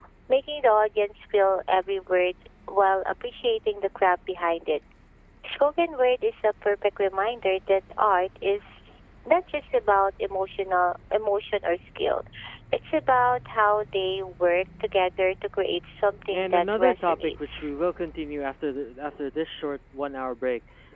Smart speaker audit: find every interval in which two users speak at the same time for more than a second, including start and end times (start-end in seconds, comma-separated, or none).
16.3-17.7